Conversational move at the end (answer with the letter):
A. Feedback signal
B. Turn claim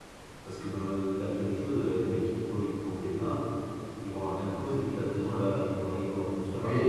B